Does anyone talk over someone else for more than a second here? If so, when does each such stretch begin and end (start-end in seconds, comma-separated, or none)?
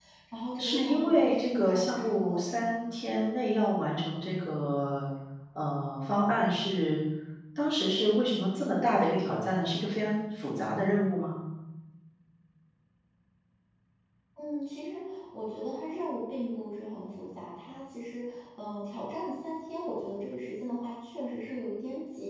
0.6-2.4